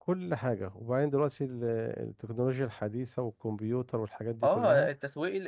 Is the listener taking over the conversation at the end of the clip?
Yes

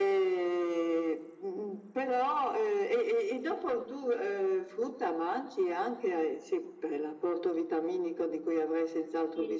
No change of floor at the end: No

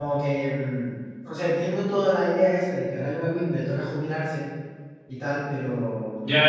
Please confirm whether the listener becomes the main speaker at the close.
Yes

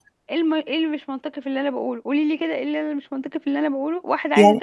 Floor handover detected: No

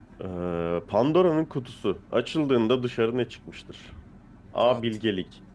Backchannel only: Yes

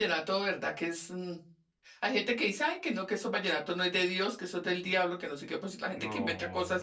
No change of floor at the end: Yes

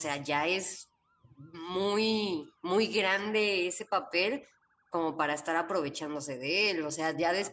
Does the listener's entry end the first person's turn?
Yes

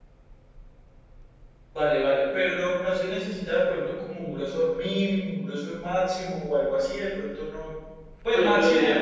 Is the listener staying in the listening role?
No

